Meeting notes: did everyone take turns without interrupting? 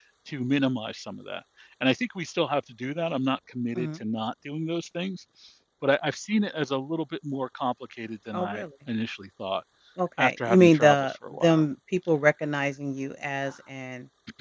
No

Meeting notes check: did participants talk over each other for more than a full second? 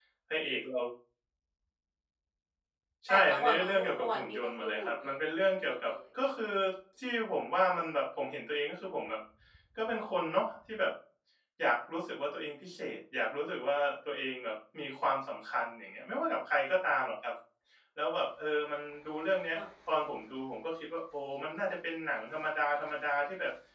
Yes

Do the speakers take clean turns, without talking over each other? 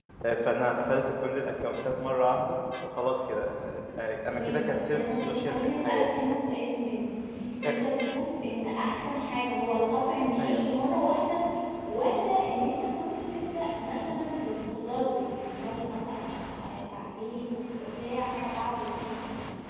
No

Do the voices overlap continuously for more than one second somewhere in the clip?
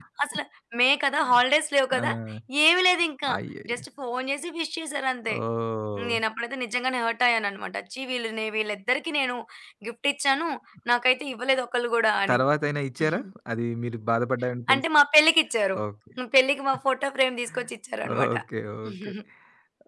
No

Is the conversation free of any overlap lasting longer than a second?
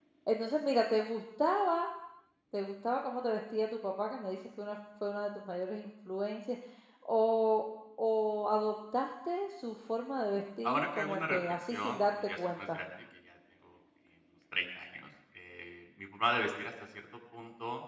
No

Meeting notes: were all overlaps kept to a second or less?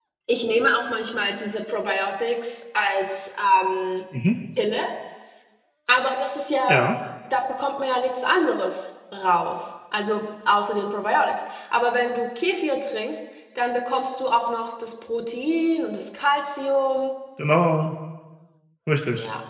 Yes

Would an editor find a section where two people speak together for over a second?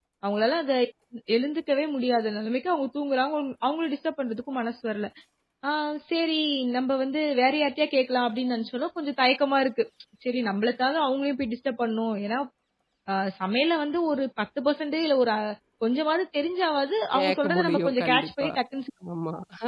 Yes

